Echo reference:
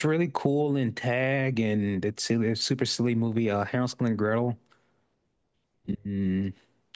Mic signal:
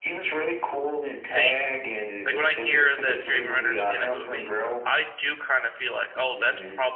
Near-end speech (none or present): present